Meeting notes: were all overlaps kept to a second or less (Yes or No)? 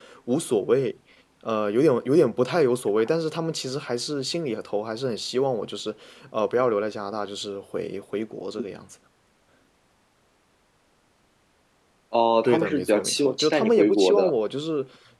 No